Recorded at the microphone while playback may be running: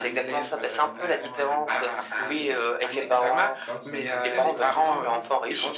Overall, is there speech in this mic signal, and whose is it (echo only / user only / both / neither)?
both